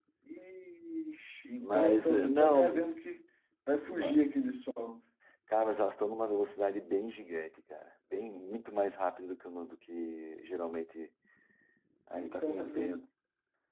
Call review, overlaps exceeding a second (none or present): present